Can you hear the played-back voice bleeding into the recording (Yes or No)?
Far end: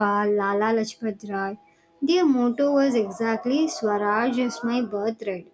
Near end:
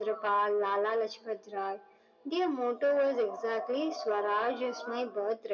Yes